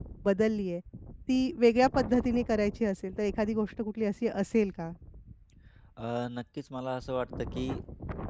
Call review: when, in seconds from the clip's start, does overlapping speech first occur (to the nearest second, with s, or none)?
none